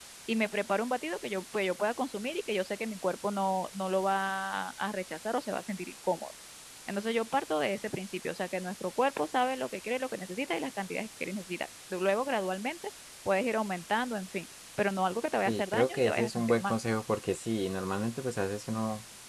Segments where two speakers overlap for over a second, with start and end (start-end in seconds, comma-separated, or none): 15.4-16.7